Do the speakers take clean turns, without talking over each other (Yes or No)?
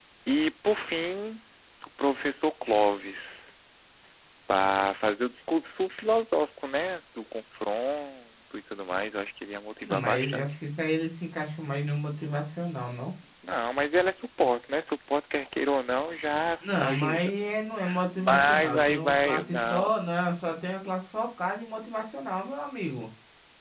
No